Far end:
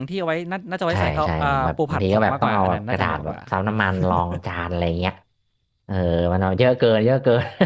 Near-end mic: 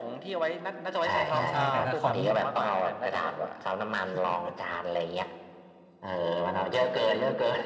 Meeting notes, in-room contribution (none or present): present